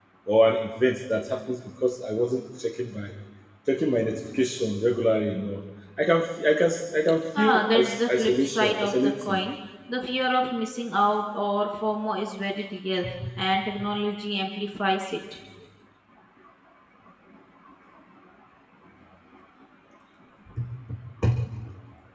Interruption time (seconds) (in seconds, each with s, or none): 7.3 s